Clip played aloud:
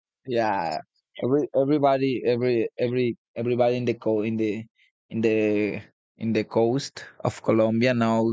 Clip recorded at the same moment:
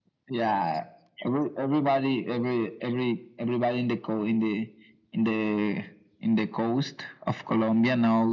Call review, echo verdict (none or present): present